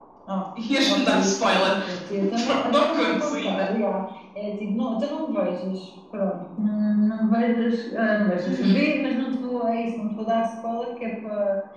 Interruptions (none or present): present